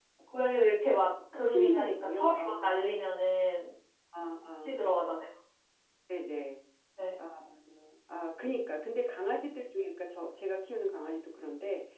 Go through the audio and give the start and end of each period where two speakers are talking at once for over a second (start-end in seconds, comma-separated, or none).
1.5-2.9